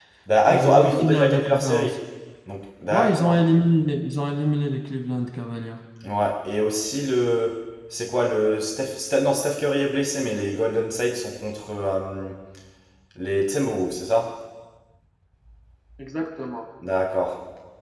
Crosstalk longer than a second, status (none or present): present